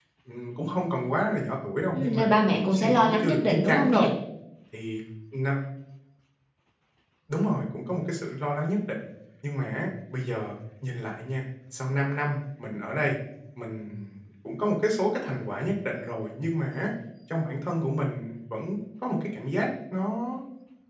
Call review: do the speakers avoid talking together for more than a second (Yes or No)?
No